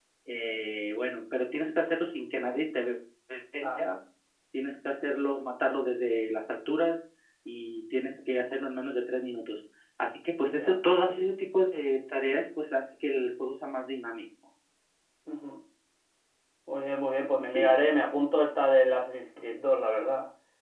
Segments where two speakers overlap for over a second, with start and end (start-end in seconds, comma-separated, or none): none